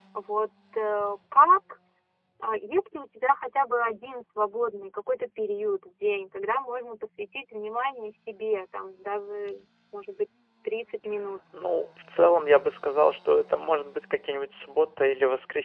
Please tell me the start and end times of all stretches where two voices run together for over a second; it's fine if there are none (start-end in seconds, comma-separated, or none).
none